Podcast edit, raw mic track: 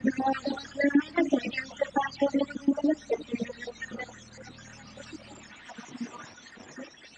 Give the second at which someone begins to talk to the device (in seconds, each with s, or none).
none